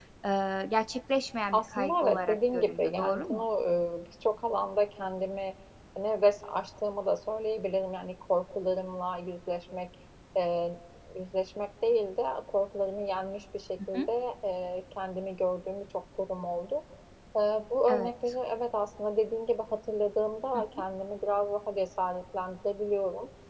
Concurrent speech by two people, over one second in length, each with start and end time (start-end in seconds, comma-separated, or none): 1.5-3.4